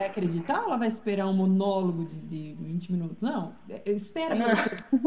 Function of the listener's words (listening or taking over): listening